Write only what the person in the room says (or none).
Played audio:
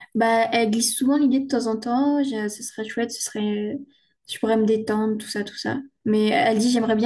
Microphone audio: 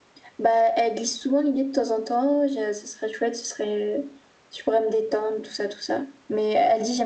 none